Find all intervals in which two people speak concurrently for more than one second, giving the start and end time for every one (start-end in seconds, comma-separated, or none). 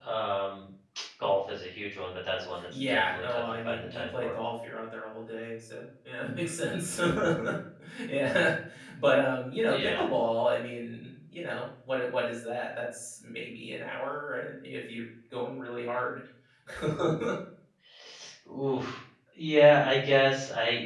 2.7-4.3